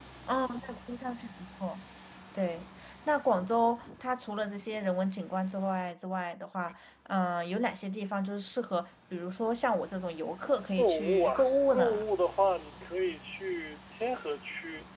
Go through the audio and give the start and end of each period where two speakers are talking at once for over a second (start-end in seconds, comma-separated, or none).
10.8-12.0